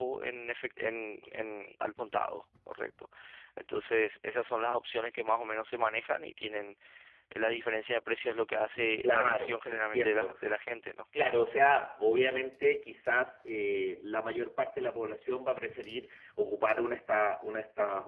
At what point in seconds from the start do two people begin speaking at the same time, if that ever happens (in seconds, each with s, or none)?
9.0 s